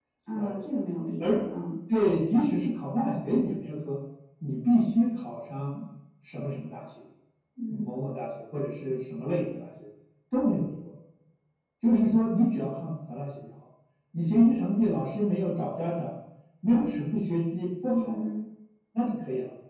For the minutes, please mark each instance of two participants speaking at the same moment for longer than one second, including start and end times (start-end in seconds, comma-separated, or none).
none